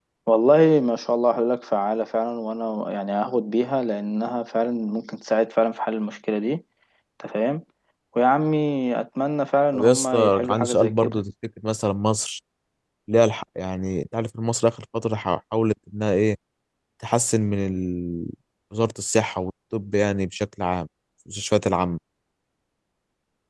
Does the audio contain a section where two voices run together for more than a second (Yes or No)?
Yes